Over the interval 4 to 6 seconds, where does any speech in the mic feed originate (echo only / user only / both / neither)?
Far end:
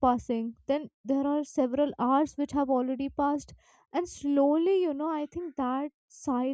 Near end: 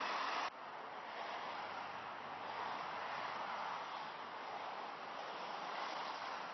neither